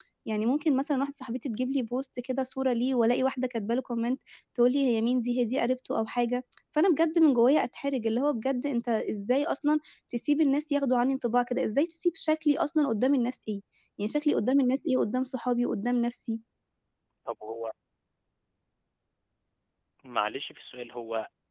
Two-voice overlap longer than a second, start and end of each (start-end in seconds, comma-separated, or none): none